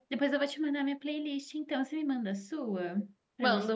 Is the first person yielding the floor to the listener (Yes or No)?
Yes